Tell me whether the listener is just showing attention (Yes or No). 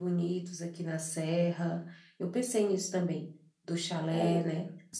Yes